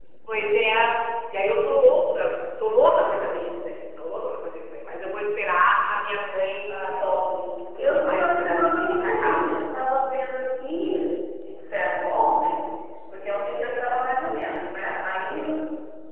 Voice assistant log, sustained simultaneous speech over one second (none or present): present